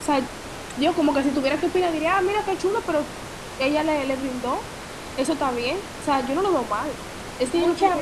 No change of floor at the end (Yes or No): No